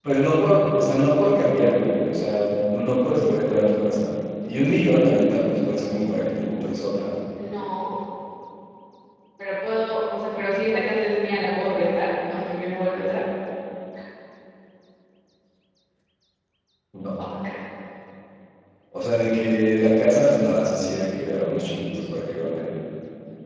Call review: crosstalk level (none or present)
none